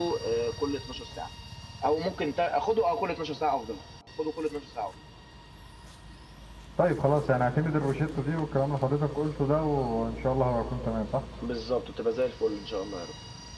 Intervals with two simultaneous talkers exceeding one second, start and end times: none

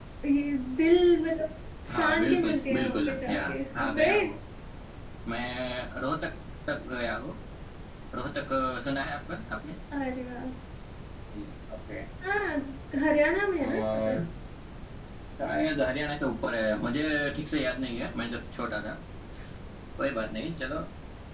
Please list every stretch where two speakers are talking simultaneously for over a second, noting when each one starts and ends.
1.9-4.2

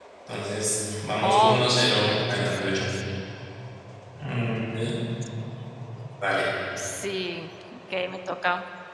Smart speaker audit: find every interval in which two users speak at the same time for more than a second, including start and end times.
1.2-2.8

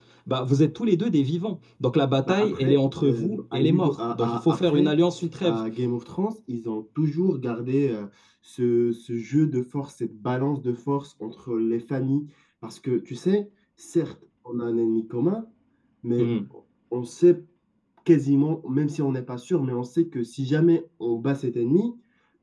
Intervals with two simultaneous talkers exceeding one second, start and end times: 2.2-5.0

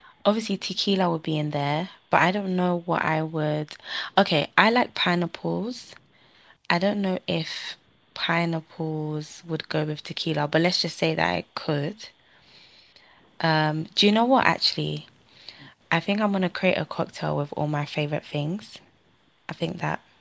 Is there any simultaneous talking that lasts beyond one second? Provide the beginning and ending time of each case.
none

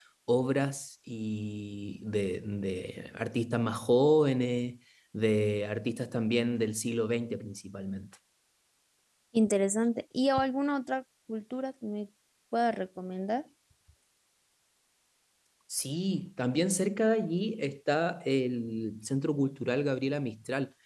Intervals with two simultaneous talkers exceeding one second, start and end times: none

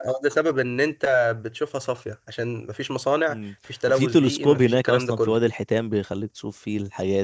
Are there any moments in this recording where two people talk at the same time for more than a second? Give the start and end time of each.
3.9-5.4

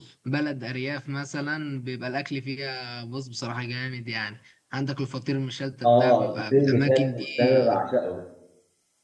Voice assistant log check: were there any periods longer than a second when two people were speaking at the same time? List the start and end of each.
5.8-7.8

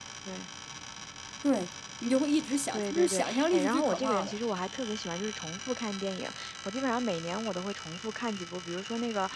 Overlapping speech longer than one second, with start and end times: 2.7-4.3

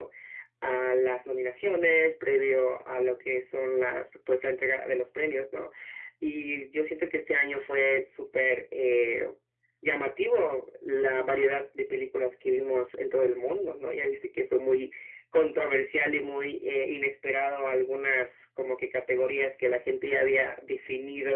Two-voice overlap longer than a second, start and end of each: none

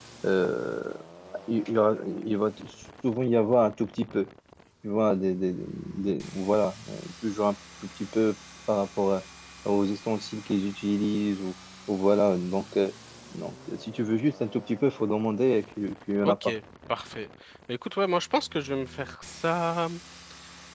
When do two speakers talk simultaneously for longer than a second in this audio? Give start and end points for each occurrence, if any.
none

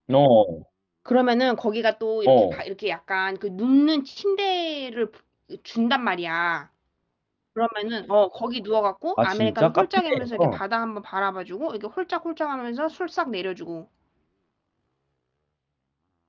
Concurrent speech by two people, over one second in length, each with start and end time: 9.2-10.6

